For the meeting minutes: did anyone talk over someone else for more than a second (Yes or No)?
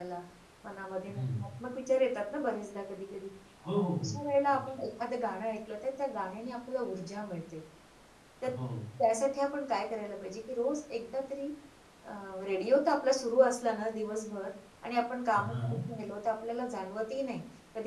No